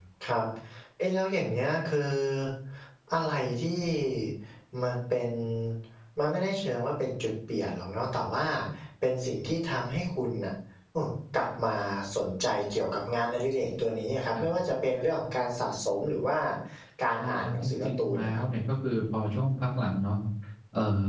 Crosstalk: present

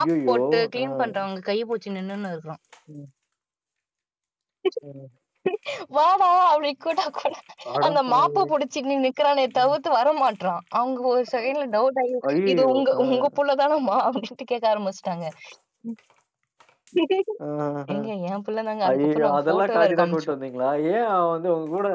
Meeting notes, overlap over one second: present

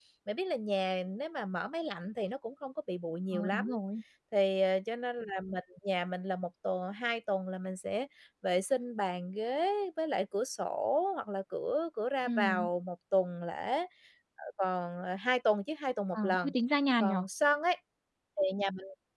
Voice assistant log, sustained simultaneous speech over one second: none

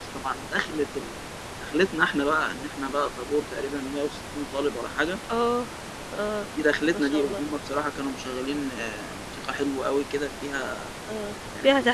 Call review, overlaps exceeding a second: none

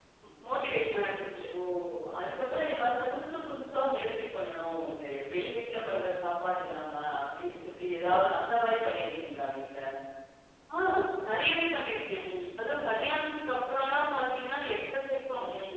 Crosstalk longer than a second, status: none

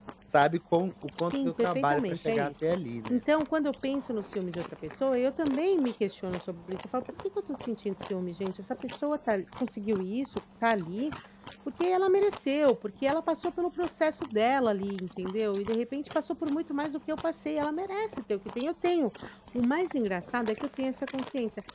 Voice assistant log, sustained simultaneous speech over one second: present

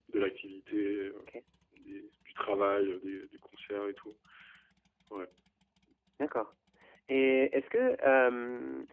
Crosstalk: none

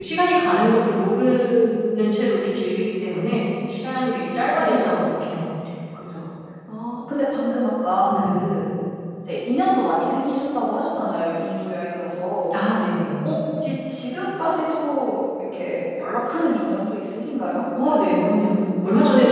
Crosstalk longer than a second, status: none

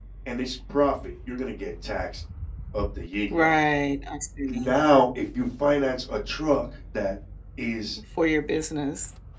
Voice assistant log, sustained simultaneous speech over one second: none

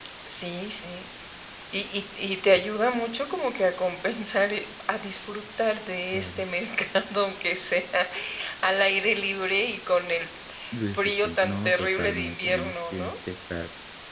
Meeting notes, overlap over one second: present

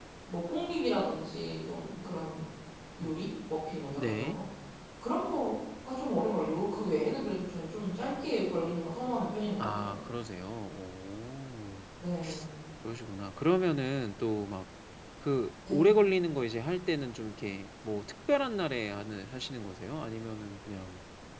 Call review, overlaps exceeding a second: none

